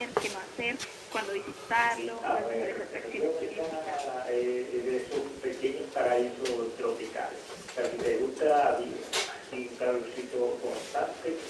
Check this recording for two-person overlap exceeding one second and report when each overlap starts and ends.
1.8-4.0

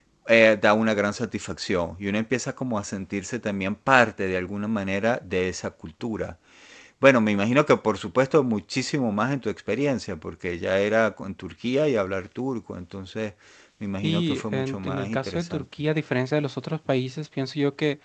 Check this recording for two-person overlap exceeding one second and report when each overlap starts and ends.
14.0-15.6

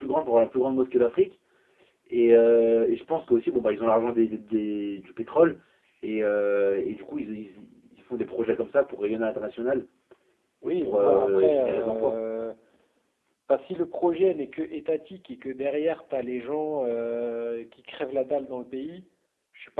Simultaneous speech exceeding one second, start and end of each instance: 10.6-12.1

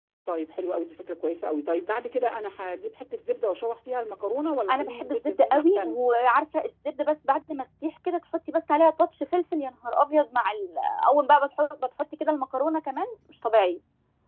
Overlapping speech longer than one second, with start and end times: 4.7-6.0

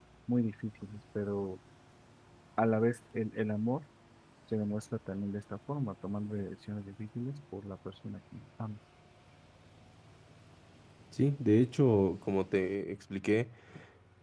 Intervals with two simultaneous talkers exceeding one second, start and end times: none

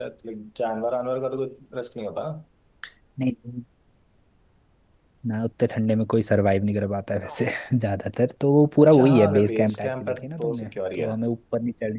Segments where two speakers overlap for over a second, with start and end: 8.8-11.1

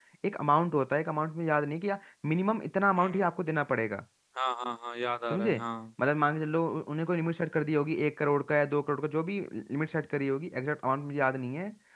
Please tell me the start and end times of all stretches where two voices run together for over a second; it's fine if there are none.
none

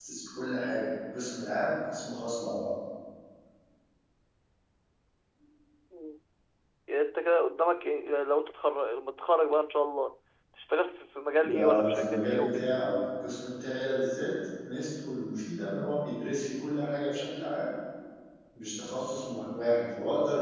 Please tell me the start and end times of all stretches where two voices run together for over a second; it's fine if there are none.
11.4-12.7

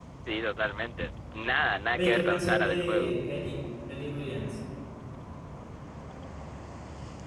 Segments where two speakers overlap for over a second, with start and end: 1.9-3.1

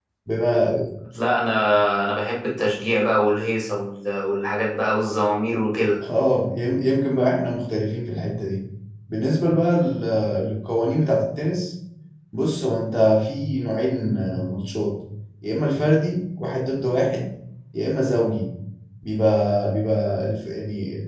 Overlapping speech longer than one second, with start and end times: none

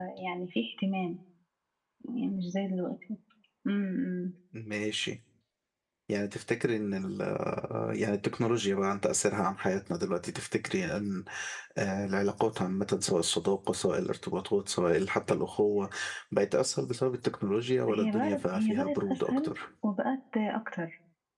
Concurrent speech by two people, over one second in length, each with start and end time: 17.9-19.5

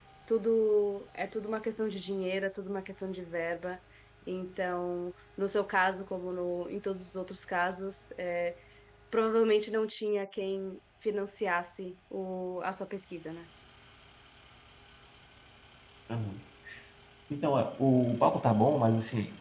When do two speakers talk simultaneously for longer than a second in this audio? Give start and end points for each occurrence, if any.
none

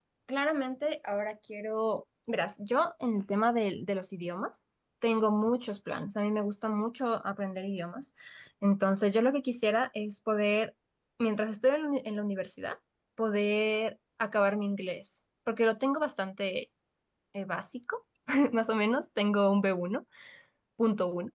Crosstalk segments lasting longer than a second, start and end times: none

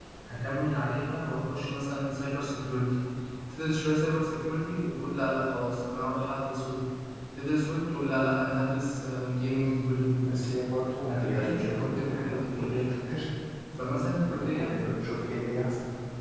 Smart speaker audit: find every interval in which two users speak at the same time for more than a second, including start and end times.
11.0-12.8

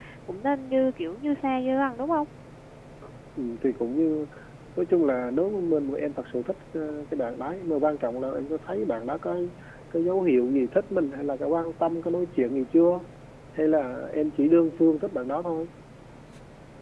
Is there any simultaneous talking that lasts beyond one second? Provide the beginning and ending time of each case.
none

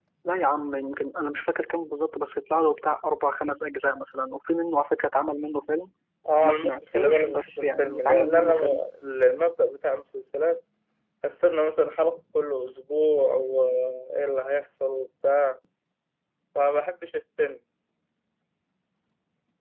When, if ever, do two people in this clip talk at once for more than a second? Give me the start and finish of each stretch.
6.4-8.8

